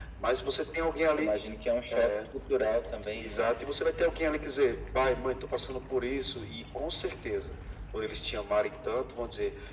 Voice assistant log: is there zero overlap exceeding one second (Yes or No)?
Yes